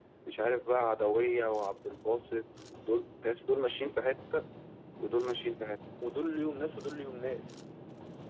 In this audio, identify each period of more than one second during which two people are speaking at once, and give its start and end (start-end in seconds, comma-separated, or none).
none